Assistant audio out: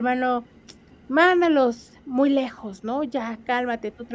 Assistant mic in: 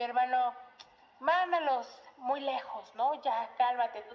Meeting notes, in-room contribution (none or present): none